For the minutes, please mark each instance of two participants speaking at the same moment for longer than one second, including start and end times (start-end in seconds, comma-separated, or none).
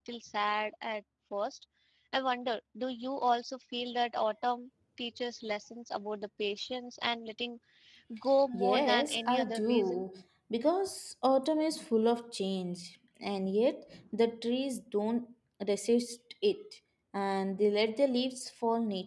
8.5-10.0